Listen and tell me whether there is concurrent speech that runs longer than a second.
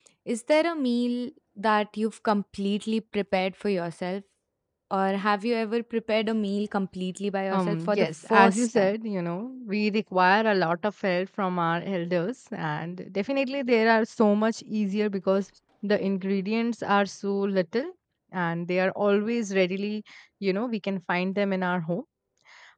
Yes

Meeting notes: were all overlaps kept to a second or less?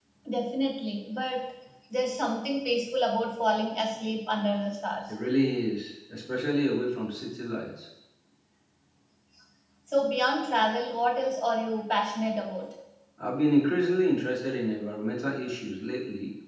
Yes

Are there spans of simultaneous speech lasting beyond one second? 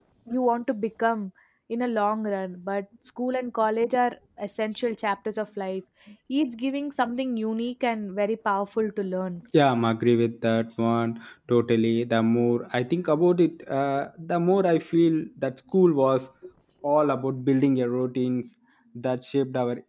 No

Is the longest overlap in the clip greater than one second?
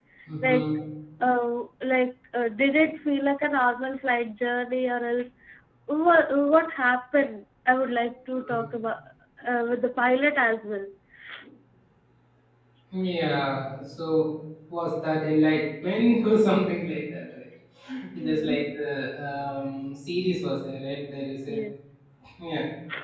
No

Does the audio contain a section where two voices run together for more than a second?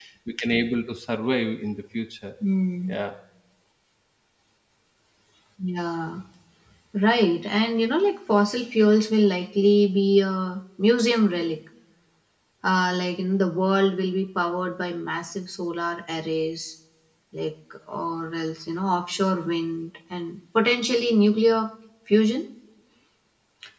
No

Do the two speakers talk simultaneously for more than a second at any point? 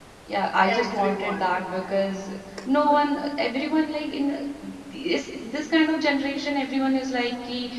Yes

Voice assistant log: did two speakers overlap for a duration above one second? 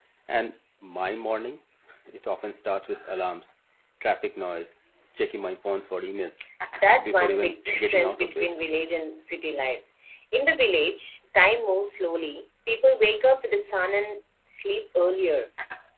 Yes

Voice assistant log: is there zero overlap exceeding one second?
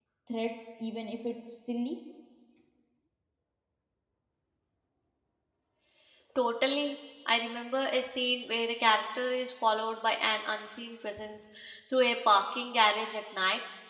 Yes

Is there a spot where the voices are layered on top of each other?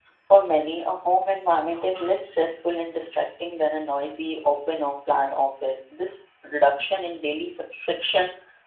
No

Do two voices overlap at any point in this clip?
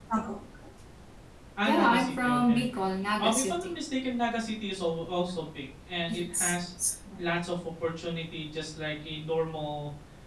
Yes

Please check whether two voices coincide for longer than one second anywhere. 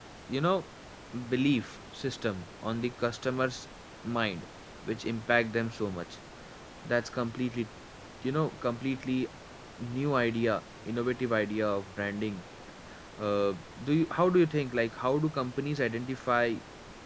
No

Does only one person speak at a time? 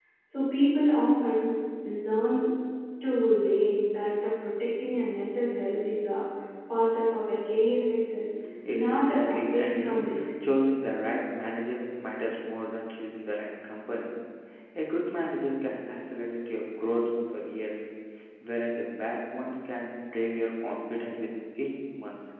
No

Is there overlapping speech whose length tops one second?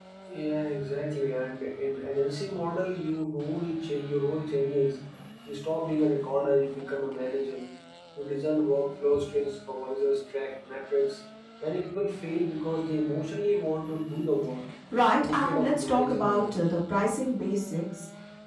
Yes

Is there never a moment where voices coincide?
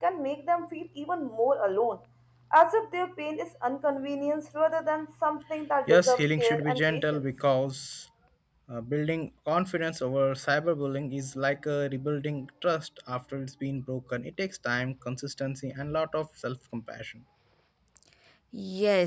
No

